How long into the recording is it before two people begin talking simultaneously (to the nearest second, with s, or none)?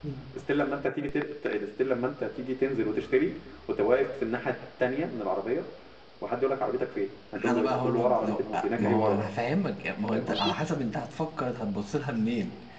7 s